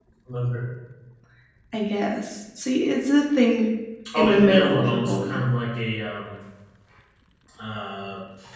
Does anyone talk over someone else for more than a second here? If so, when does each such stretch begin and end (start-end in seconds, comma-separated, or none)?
4.1-5.4